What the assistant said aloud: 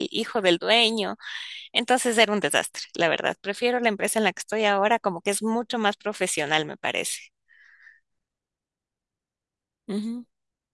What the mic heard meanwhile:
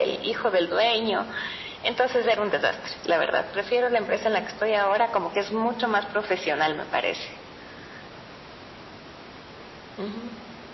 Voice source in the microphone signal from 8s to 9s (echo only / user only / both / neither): neither